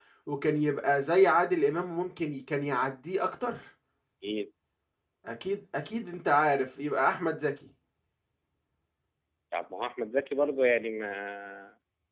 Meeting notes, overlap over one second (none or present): none